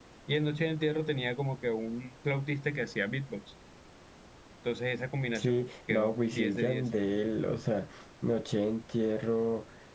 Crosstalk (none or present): present